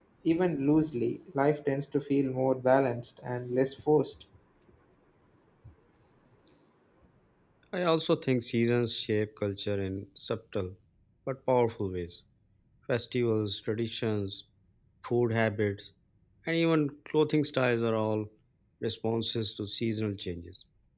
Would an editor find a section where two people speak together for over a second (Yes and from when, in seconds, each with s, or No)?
No